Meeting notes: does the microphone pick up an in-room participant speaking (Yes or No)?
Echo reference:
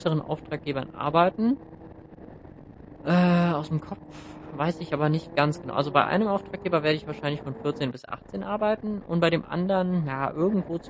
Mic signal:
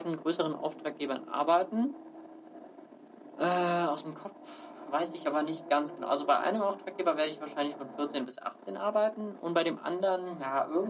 No